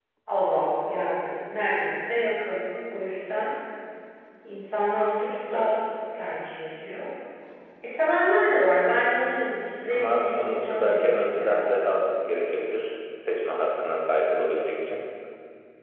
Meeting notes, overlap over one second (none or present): present